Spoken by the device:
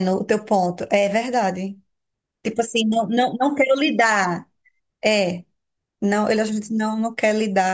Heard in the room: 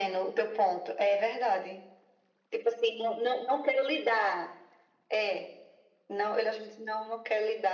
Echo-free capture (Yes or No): No